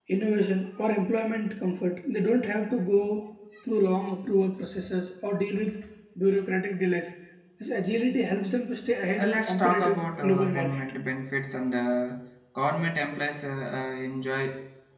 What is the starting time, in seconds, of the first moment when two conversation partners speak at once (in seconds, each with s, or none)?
9.2 s